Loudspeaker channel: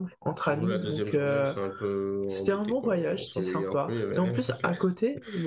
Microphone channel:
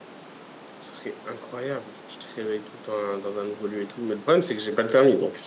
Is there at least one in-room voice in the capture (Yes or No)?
Yes